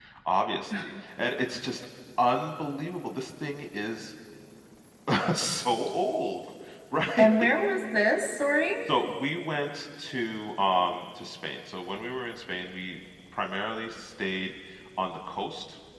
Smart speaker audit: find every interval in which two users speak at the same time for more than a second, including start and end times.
none

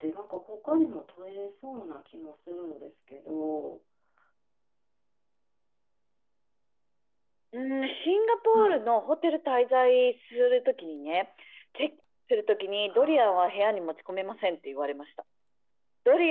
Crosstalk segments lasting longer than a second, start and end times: none

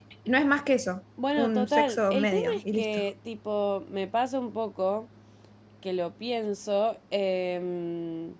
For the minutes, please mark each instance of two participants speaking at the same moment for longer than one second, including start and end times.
1.4-3.0

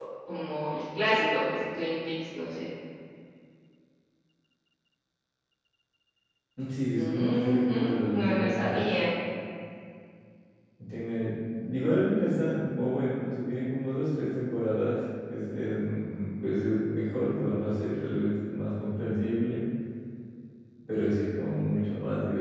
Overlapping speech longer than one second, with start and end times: 7.0-8.9

